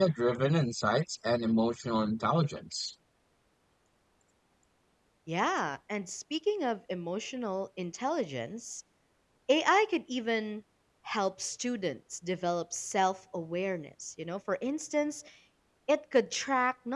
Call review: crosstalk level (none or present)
none